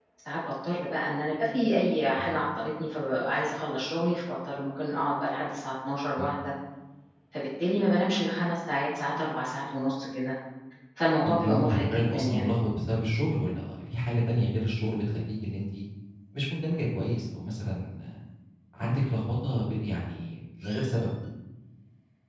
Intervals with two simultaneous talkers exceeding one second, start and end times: 11.2-12.5

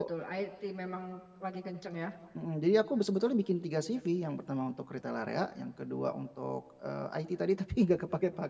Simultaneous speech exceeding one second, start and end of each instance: none

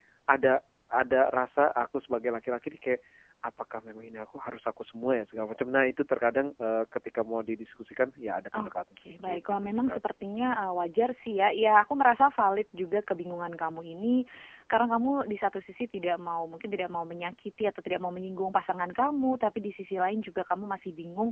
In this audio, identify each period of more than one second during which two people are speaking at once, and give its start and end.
8.6-10.0

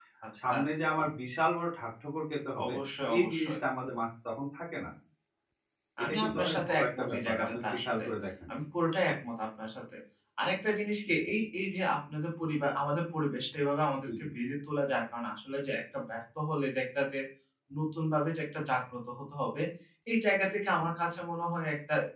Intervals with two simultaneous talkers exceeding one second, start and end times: 6.0-8.0

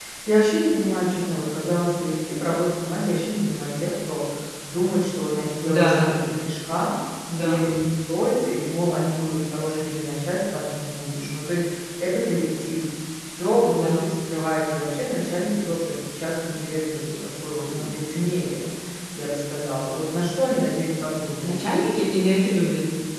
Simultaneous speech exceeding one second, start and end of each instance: none

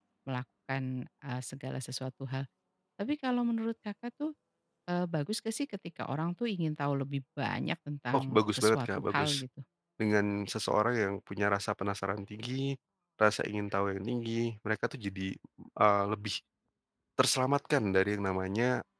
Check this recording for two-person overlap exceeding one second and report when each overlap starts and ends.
8.1-9.4

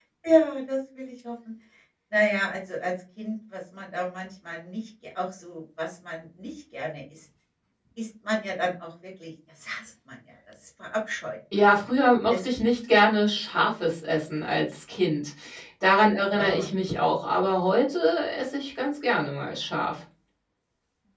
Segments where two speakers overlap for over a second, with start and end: none

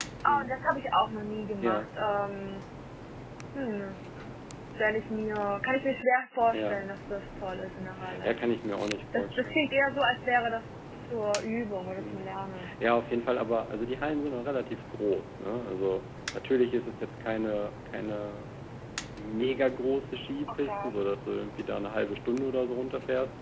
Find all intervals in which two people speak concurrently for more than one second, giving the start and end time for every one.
none

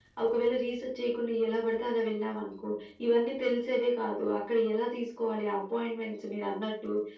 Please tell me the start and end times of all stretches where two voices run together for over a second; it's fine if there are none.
none

